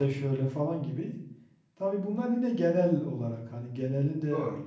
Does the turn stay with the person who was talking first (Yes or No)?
Yes